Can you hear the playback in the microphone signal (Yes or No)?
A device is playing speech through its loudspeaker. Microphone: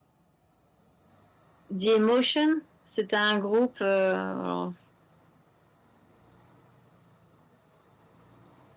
No